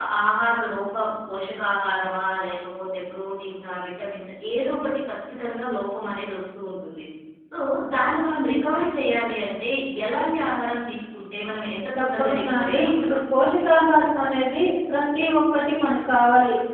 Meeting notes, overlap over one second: present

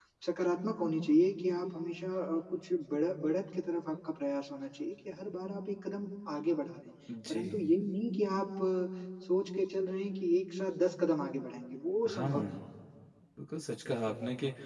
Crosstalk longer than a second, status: none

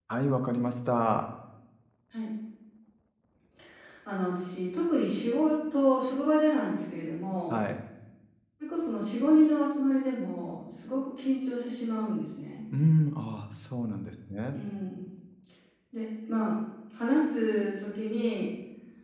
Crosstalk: none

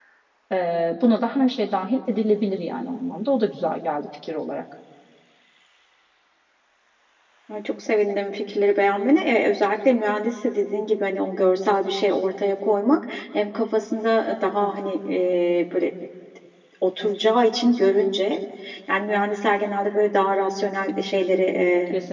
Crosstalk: none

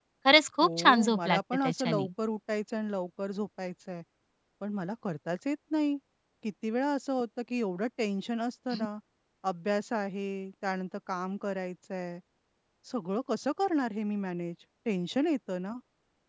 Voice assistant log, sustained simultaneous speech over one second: present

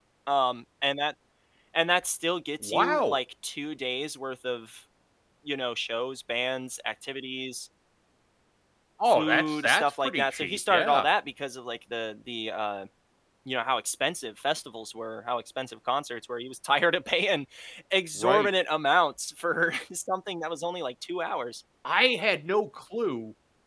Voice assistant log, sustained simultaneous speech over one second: present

